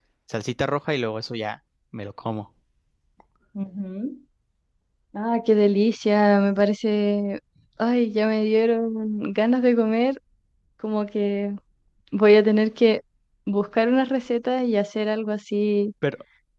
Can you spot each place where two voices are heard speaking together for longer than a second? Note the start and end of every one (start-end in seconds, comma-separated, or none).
none